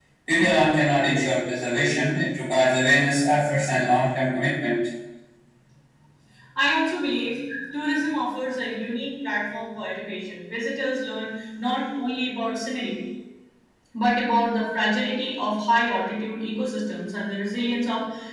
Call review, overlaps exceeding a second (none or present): none